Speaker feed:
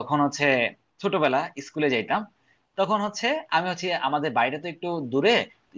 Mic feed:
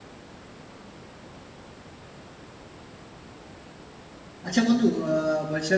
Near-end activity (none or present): present